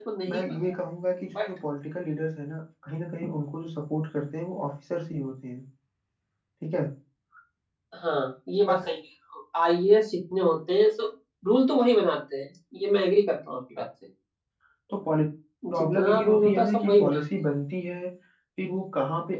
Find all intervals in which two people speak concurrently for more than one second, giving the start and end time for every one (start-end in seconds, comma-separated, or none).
15.8-17.2